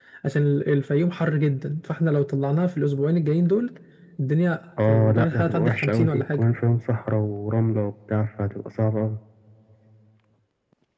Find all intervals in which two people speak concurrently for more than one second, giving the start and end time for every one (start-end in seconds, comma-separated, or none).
4.9-6.4